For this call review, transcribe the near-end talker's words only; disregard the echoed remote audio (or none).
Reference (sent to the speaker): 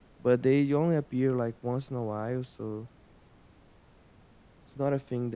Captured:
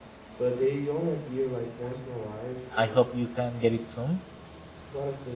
I hope you can get it soon.